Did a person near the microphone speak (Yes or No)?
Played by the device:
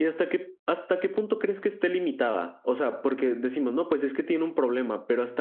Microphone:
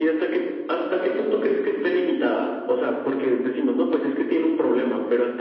No